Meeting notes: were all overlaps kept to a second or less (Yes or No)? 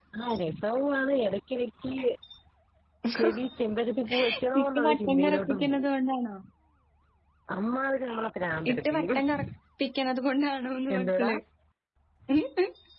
No